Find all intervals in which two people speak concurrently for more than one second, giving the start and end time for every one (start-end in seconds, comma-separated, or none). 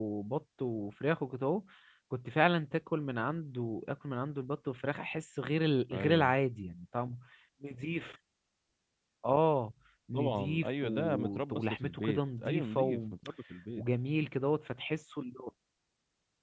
10.1-13.0